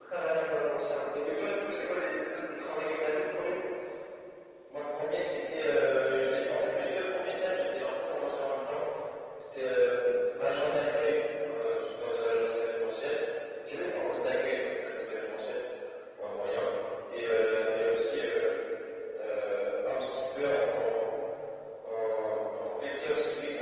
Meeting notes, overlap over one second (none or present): none